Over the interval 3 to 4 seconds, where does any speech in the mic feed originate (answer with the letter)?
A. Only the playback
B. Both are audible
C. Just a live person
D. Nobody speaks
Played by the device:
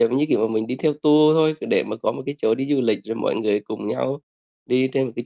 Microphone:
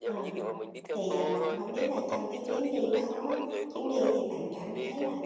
B